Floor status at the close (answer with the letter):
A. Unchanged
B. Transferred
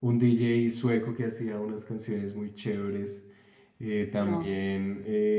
A